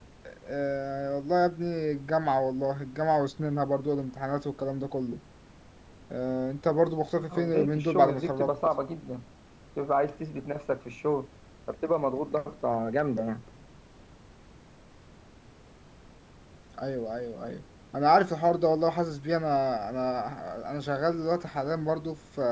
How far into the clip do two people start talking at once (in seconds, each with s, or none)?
7.3 s